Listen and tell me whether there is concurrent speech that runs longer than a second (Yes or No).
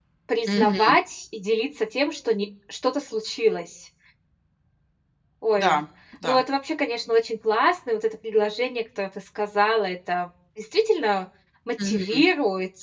No